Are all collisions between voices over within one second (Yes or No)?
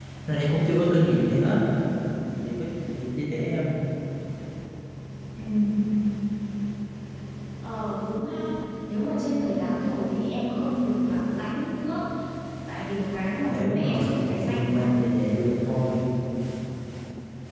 No